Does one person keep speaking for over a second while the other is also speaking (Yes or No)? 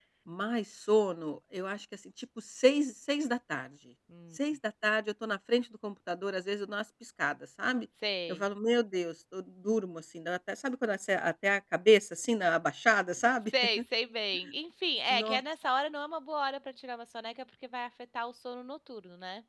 No